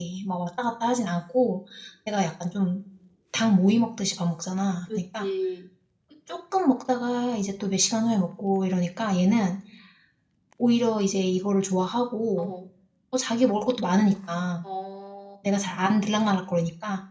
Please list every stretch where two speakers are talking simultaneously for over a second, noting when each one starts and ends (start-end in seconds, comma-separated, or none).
none